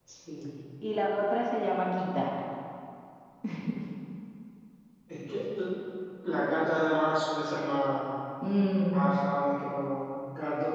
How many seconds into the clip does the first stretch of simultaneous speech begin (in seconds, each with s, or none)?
none